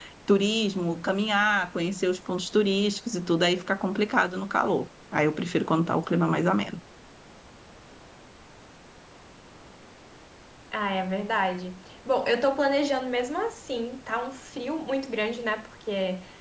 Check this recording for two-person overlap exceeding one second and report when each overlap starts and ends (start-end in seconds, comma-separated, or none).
none